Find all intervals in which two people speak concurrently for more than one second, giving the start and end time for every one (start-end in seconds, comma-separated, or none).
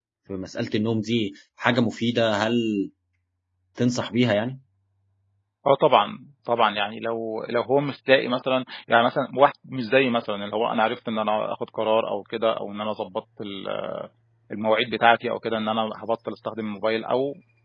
none